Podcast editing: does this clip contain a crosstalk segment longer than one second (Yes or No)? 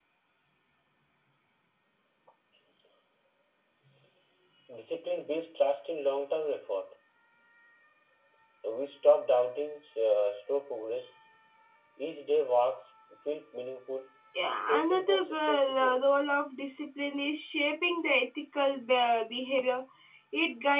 Yes